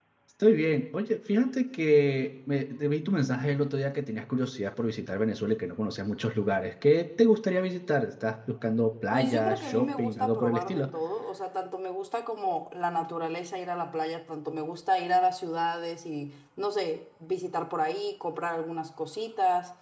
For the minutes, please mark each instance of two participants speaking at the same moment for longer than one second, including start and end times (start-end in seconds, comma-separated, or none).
9.1-10.8